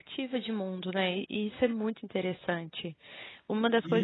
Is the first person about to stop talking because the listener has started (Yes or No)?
Yes